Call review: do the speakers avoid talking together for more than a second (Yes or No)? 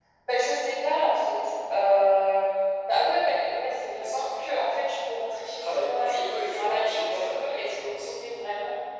No